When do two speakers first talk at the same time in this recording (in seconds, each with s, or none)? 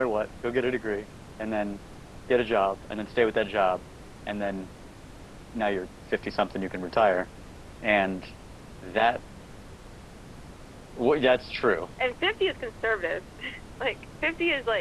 none